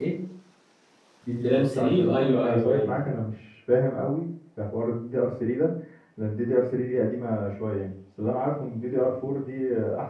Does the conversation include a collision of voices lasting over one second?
Yes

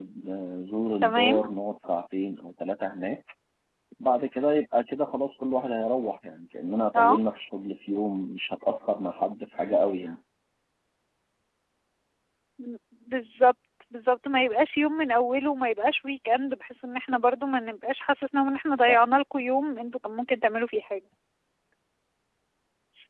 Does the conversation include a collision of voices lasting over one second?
No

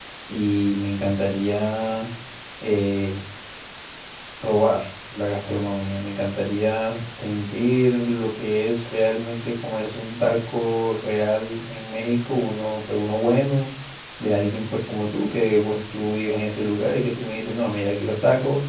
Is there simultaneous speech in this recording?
No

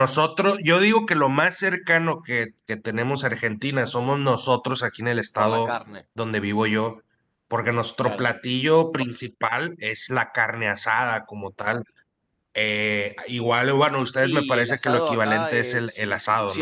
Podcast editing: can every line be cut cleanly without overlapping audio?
No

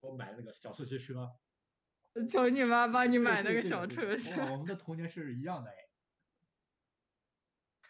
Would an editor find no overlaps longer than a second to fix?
No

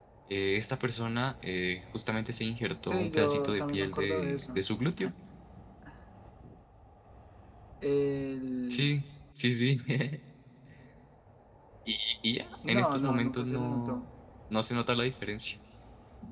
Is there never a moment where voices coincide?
No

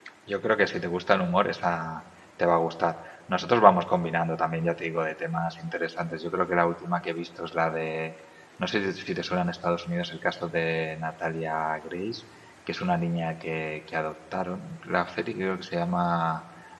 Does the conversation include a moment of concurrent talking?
No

